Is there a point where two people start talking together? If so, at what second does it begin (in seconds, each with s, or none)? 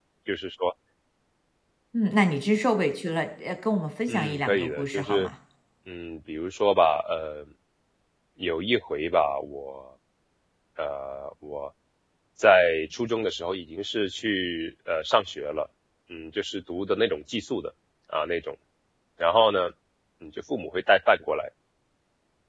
4.1 s